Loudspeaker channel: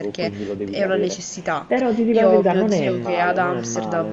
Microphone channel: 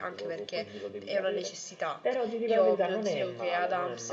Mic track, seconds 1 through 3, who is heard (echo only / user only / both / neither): echo only